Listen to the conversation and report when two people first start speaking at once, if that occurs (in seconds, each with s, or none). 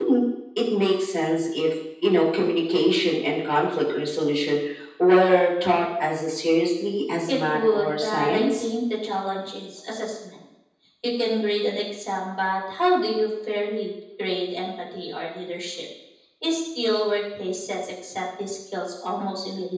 7.3 s